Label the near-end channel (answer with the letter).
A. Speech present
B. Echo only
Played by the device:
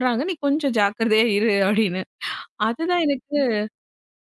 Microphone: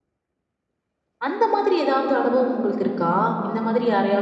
A